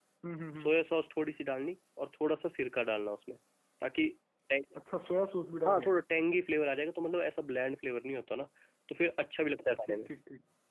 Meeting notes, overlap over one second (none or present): none